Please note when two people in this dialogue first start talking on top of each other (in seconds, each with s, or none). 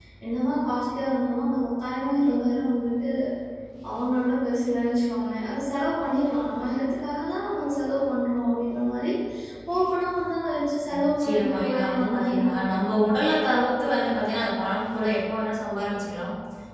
10.9 s